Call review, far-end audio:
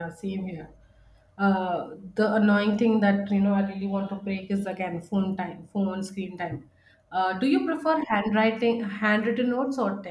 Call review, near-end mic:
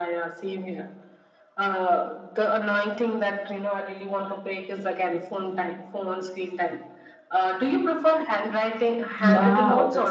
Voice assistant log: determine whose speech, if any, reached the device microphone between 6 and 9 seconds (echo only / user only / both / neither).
echo only